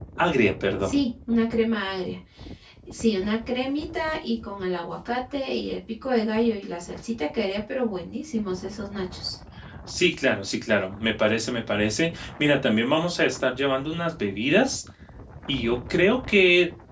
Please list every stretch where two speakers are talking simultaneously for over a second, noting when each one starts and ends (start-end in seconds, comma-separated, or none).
none